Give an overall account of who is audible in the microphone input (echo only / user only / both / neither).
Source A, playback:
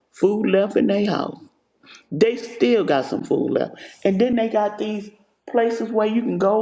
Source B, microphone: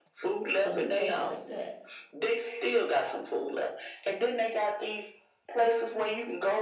both